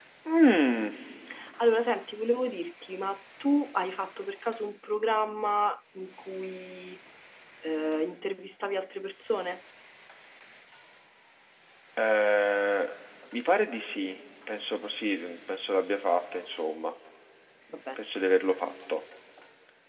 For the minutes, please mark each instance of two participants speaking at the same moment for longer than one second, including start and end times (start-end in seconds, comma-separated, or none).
none